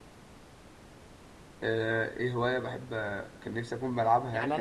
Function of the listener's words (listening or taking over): taking over